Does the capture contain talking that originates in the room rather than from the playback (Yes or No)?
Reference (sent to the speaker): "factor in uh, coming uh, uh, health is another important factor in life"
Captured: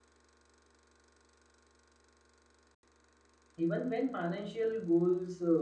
Yes